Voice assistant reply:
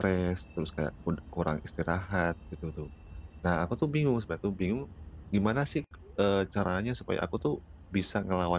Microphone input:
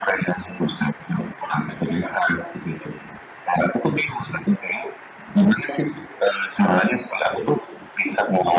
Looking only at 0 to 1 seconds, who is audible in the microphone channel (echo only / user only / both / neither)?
echo only